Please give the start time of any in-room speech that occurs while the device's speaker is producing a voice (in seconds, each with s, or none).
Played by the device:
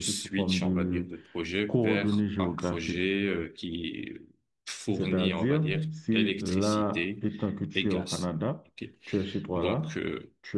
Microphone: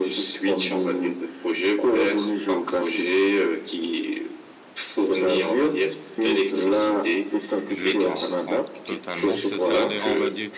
7.7 s